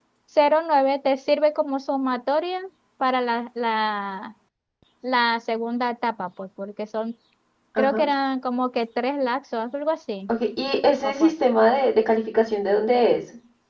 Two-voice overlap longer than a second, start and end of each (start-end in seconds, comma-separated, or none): none